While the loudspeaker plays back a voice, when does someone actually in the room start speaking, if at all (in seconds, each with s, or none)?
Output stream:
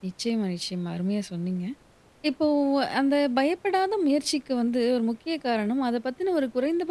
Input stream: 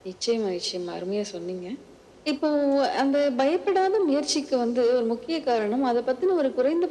none